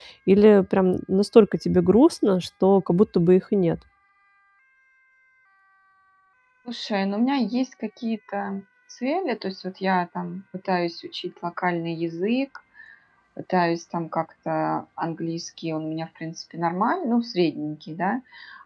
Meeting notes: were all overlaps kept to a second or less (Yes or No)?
Yes